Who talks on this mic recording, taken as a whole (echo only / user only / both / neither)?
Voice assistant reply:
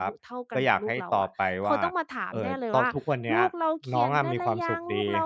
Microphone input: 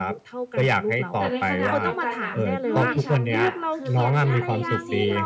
both